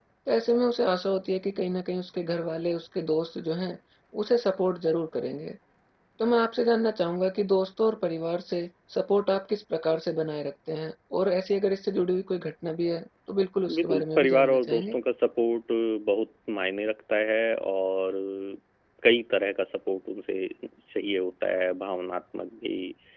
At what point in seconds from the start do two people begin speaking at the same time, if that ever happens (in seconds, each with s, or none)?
13.7 s